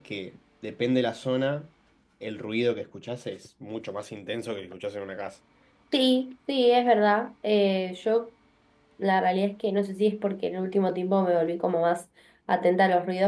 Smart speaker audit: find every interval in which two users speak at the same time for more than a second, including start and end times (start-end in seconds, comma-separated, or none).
none